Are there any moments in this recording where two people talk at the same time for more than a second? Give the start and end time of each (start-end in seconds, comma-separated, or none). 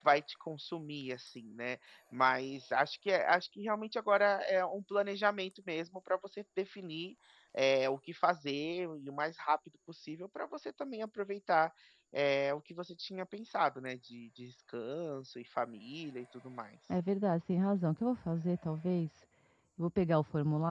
none